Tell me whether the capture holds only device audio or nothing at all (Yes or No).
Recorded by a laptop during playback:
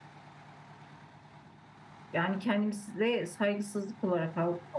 No